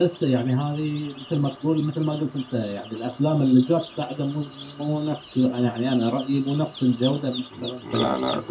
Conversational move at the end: taking over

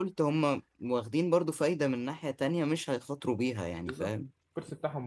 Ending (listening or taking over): taking over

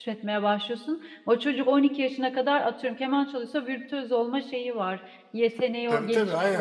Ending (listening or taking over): taking over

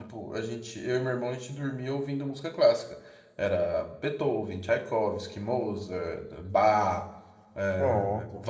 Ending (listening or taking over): listening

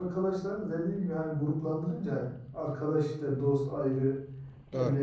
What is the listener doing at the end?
listening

